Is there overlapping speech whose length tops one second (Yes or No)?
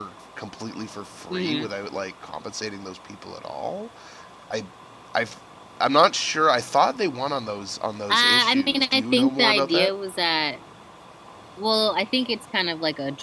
Yes